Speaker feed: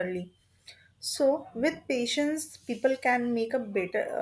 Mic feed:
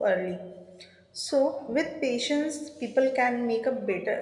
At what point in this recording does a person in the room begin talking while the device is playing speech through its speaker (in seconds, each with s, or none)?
none